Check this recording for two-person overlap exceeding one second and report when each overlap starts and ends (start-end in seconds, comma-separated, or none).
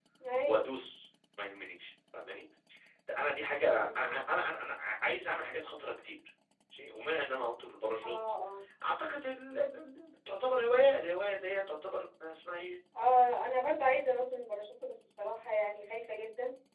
none